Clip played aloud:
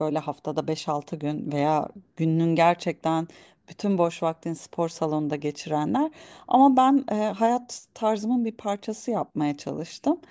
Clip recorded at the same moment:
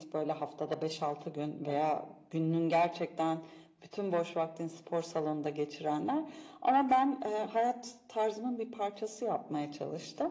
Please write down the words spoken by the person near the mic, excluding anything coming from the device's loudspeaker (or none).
none